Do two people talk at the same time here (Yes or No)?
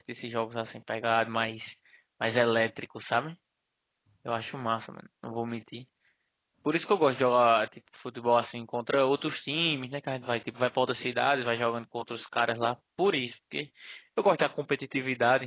No